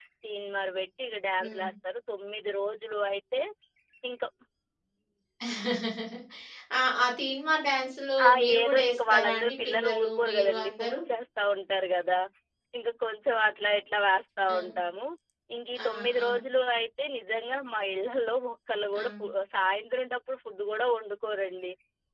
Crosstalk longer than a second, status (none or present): present